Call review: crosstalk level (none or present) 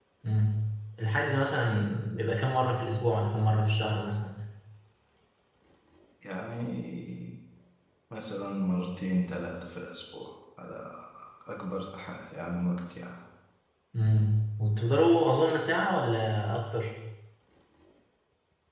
none